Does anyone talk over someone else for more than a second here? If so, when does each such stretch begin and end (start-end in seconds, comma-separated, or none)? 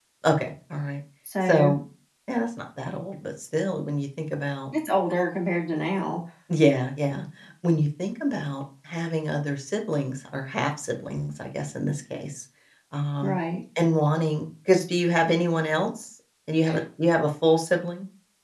none